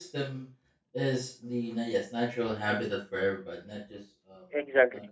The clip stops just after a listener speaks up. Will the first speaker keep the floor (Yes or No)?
Yes